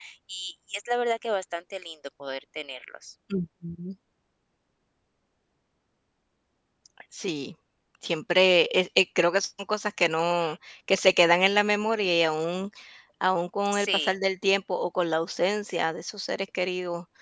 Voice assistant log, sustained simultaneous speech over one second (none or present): none